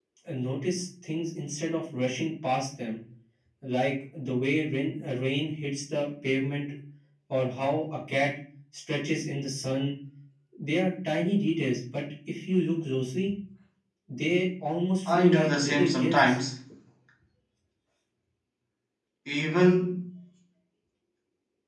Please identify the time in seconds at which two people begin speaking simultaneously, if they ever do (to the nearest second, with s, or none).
15 s